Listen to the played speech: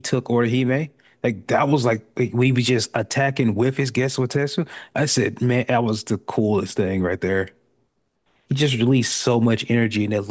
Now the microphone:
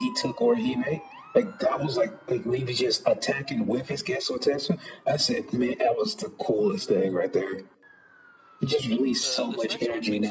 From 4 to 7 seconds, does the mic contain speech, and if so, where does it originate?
echo only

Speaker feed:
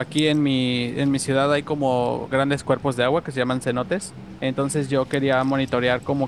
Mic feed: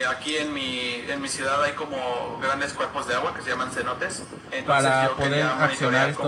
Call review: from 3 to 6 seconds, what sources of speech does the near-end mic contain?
both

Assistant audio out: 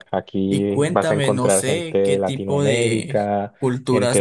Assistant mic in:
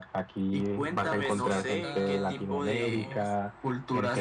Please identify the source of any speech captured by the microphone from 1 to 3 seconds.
both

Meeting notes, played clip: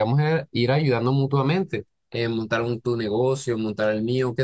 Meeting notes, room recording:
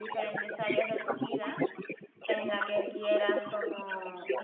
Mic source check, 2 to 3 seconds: both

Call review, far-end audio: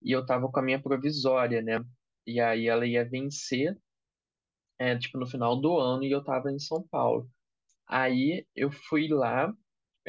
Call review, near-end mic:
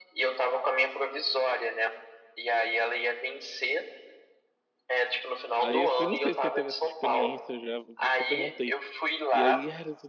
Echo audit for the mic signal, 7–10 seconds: both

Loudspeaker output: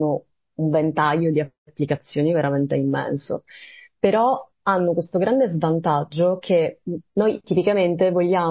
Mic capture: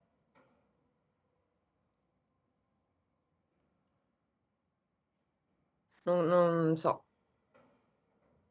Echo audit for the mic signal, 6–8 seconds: user only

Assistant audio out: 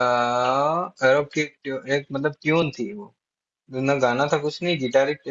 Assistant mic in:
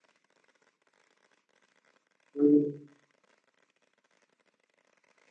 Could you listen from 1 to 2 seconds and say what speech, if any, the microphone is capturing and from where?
neither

